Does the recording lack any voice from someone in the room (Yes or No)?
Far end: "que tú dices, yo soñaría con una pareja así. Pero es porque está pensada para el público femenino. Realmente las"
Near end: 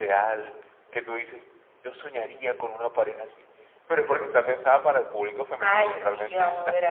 No